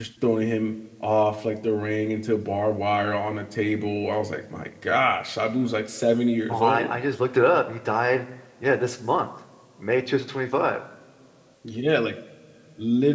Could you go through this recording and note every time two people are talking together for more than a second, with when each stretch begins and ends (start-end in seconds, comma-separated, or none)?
none